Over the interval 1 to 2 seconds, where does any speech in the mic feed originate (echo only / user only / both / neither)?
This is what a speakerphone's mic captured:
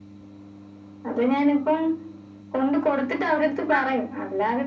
echo only